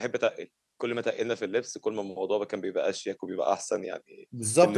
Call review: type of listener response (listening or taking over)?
taking over